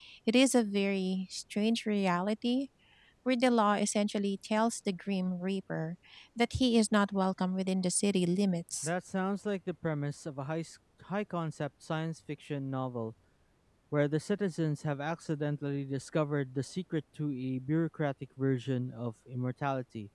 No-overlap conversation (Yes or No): Yes